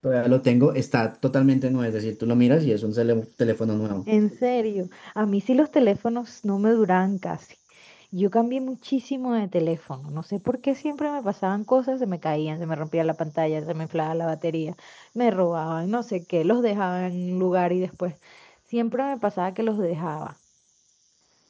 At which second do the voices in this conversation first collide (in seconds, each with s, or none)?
none